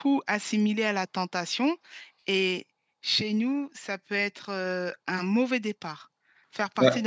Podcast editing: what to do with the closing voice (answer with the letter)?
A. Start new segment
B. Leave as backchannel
B